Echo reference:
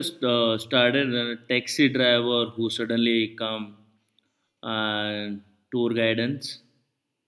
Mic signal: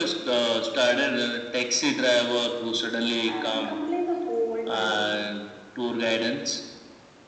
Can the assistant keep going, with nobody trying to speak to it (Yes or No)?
No